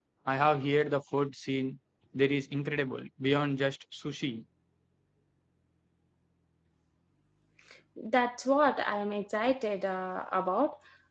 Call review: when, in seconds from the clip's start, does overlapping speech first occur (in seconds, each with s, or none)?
none